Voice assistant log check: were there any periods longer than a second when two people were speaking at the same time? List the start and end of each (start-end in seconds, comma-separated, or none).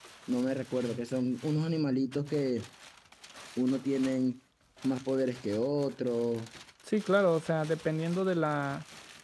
none